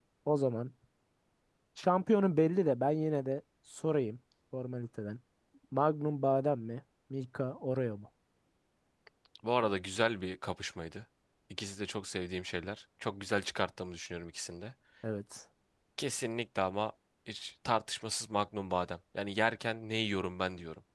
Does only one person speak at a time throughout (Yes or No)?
Yes